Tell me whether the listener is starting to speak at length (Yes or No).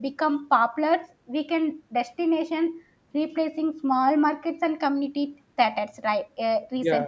No